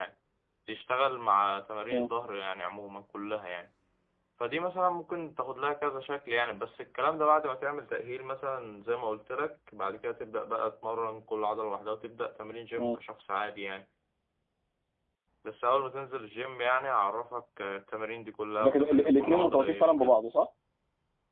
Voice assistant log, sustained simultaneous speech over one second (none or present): present